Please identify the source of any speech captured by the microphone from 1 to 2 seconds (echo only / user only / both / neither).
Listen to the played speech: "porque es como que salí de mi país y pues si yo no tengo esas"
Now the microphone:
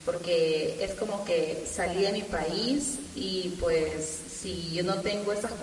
echo only